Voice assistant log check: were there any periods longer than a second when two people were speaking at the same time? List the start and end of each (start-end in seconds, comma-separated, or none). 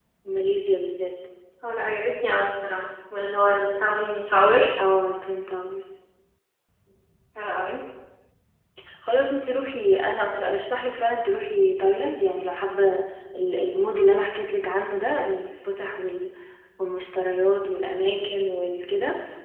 none